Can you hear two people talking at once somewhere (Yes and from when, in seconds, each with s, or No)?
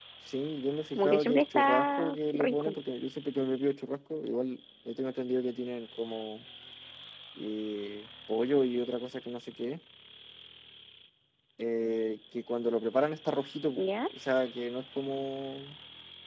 Yes, from 1.0 s